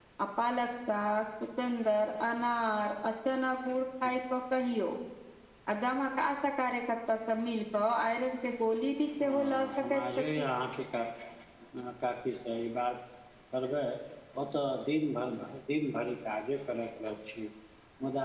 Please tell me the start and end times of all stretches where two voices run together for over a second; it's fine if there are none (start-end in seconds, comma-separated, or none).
9.2-10.4